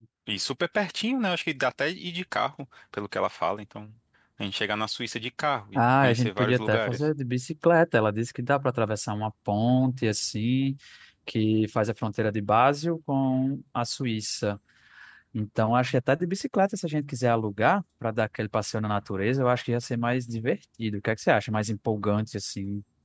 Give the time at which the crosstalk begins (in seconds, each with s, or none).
5.8 s